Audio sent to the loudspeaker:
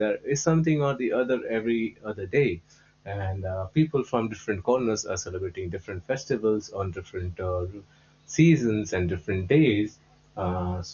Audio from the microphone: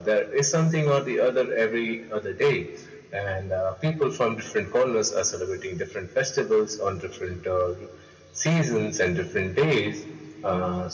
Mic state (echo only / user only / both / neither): echo only